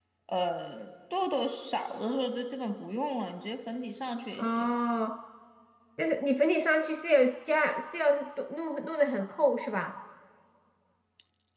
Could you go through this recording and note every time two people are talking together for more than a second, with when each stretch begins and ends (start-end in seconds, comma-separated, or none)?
none